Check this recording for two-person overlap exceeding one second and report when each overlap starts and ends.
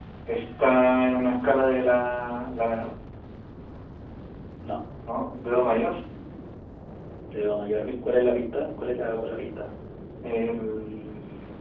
none

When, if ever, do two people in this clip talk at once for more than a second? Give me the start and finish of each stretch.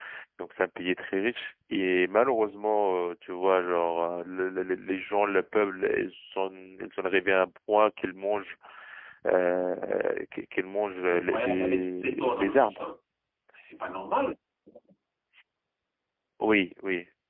11.1-12.9

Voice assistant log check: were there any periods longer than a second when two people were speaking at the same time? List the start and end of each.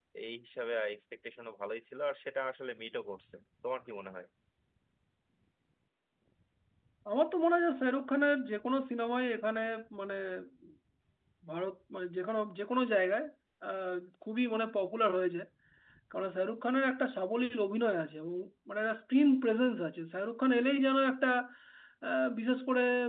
none

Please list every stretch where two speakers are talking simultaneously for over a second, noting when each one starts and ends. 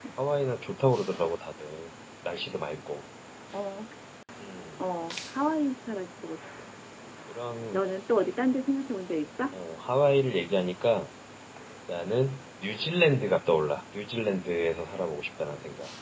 none

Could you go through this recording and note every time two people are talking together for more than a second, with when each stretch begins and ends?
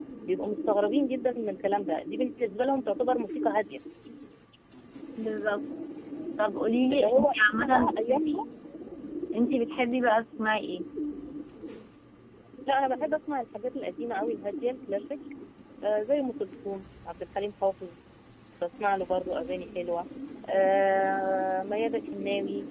6.9-8.4

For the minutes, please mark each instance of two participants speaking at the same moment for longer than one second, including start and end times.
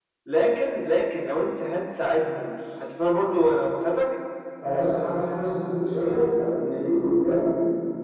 none

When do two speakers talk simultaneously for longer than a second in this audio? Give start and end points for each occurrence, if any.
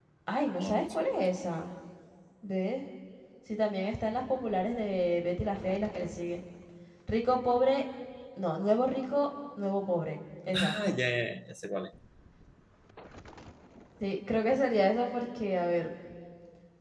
none

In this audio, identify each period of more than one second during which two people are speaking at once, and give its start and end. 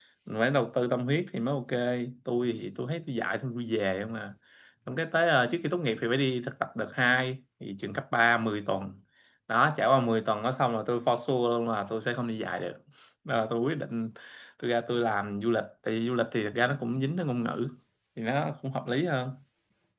none

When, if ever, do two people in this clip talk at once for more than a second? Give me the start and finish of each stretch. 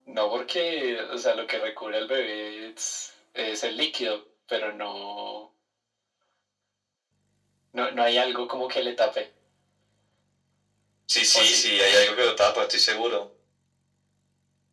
none

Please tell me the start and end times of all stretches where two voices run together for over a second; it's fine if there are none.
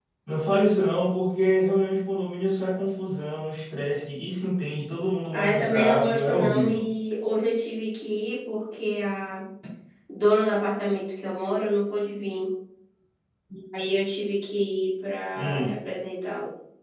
5.3-6.9

